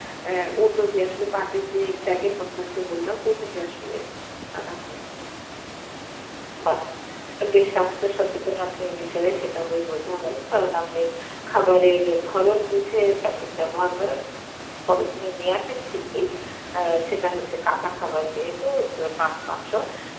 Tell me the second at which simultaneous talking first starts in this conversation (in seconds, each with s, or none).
none